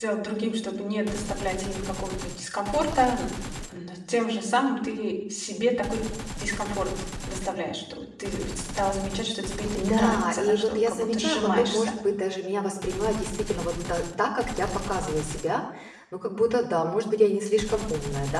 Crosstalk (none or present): present